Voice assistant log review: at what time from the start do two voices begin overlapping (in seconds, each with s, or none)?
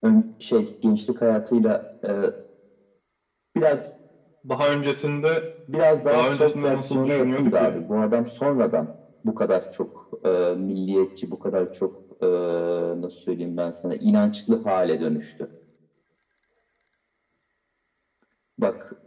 6.1 s